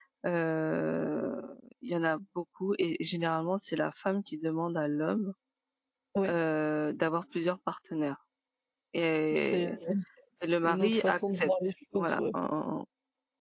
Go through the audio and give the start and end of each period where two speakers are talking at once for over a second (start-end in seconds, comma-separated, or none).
10.6-12.2